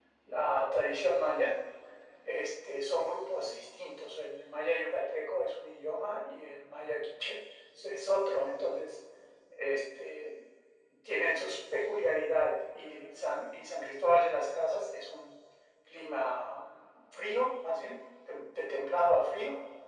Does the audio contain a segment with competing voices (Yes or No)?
No